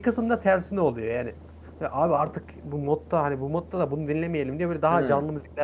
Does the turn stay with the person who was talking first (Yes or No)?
Yes